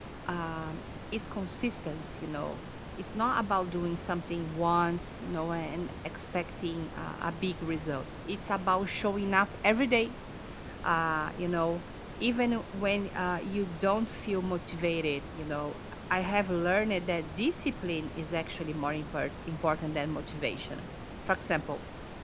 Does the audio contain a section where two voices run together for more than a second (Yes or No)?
No